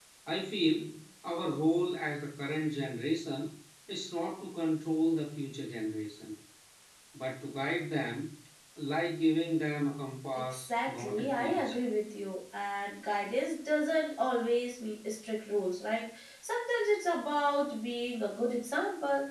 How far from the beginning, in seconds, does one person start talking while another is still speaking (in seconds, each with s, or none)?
10.5 s